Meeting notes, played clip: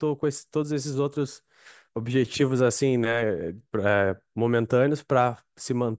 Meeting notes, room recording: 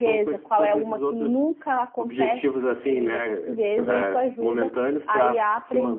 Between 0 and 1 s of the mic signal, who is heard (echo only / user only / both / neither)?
both